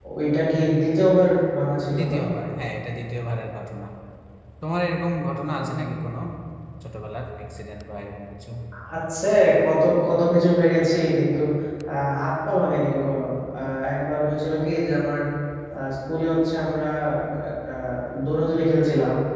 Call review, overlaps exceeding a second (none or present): none